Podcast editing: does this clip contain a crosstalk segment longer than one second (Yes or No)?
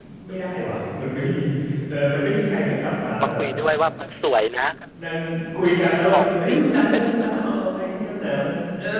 Yes